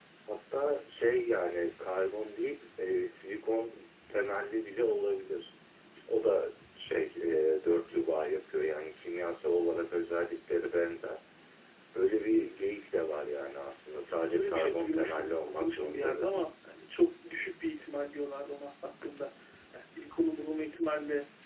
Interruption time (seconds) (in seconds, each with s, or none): 14.3 s